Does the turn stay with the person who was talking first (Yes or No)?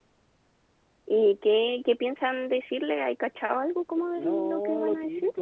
No